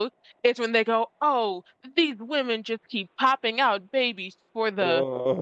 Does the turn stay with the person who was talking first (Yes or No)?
Yes